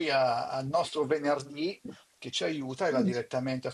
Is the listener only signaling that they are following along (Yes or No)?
Yes